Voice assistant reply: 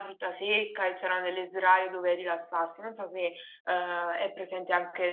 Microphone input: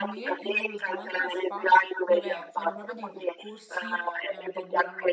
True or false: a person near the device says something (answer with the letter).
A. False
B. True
B